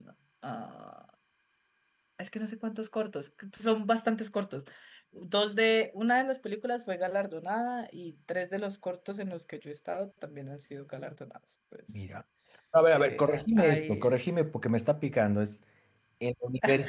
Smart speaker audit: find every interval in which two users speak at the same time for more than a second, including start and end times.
12.9-14.2

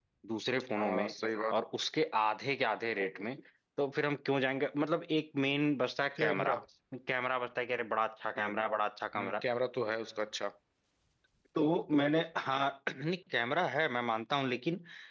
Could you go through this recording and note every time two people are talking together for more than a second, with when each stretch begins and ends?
none

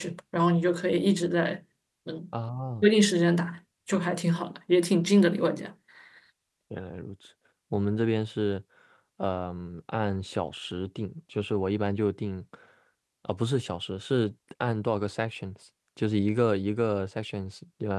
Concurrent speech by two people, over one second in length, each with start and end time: none

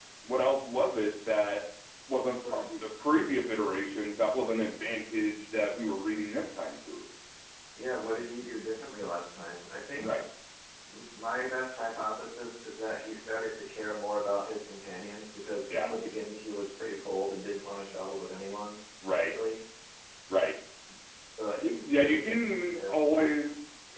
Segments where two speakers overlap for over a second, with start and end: 21.6-23.3

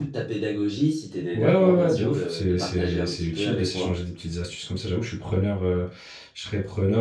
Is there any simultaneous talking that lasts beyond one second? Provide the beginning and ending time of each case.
1.3-3.9

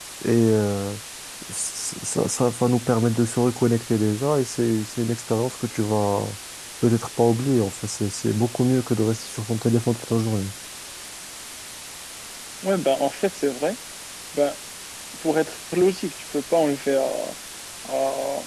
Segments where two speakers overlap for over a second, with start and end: none

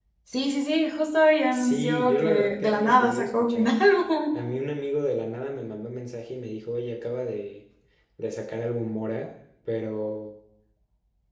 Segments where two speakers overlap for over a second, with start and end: 1.5-3.7

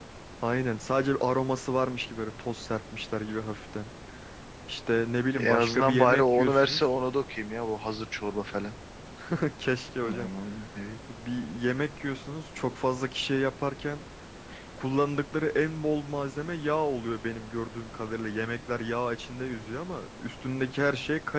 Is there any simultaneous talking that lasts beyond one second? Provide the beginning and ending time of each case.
5.4-6.8

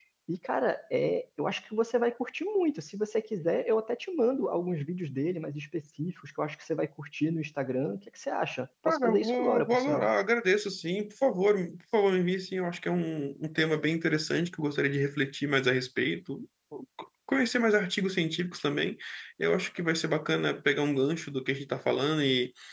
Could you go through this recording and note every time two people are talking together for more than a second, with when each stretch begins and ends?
8.8-10.1

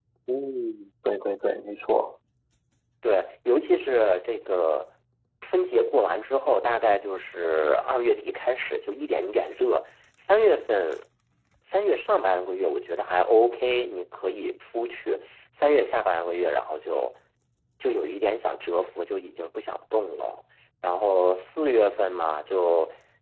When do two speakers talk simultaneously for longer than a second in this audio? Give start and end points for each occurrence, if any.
none

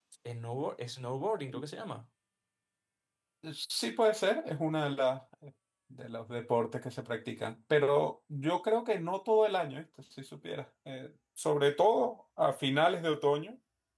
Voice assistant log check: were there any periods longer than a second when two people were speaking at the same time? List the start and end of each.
none

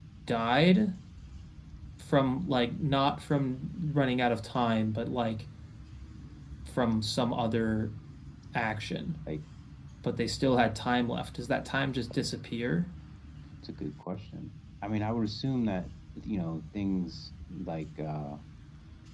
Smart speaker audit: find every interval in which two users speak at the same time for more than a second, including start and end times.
none

